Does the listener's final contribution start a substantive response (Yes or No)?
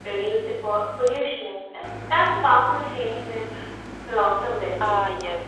Yes